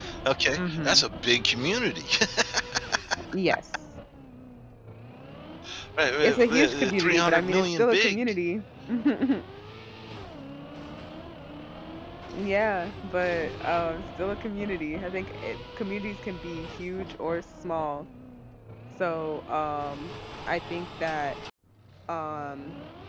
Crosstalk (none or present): present